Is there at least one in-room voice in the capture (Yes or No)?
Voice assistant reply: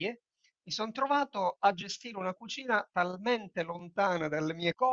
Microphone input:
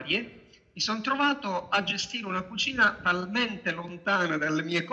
No